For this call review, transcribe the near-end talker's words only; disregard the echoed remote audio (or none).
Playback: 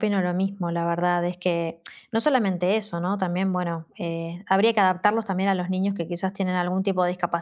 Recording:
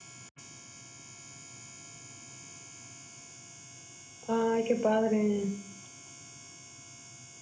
Ay, qué padre.